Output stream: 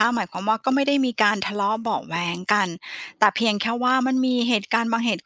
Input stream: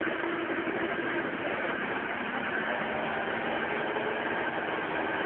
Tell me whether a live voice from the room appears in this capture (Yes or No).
No